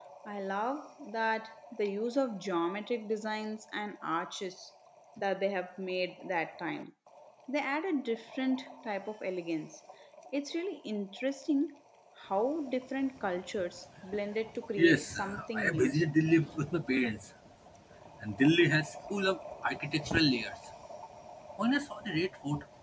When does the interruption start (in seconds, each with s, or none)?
14.8 s